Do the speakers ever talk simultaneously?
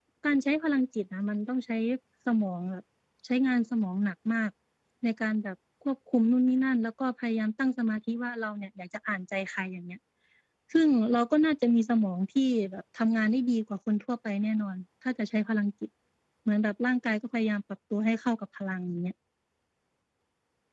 No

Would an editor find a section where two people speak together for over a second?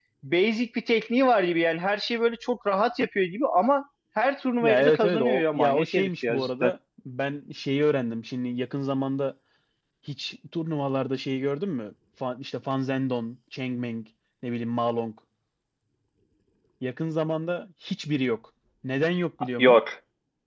Yes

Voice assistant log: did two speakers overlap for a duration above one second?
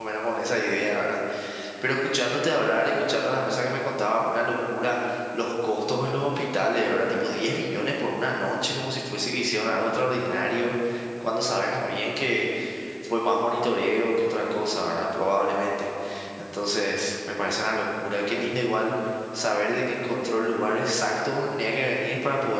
No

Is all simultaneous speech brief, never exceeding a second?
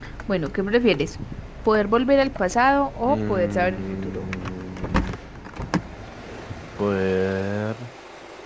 No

